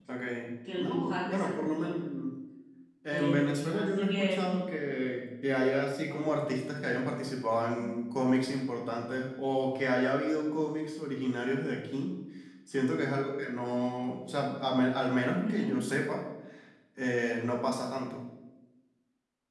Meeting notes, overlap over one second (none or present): present